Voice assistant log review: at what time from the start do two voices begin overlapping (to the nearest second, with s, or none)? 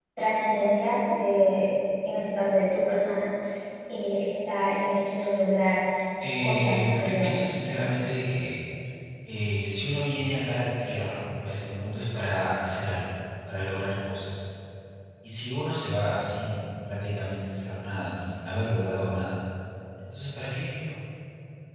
6 s